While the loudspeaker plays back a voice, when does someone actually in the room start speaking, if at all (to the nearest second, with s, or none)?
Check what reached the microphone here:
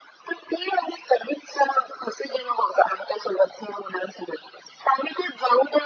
none